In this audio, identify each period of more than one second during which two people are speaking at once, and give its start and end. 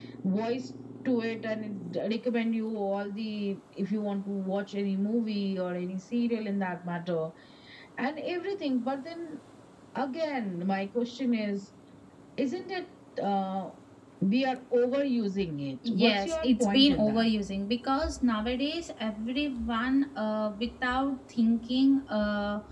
15.9-17.3

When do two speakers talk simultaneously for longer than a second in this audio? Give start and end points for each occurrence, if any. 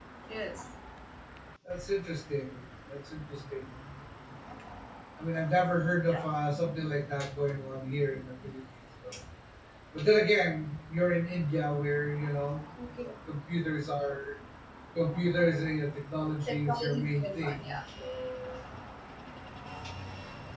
16.5-17.8

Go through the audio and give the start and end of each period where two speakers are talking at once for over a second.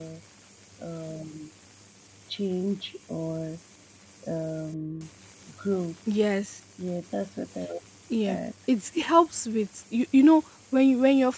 none

